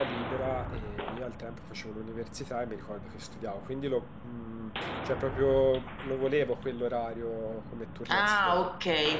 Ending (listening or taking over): taking over